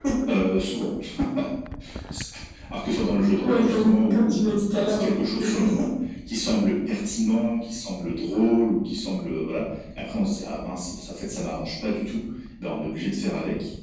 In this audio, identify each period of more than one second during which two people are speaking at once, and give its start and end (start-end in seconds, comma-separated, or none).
3.4-5.1